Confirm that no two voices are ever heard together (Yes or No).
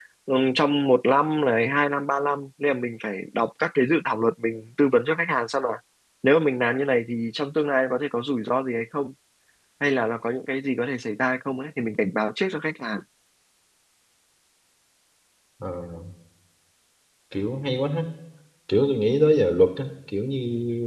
Yes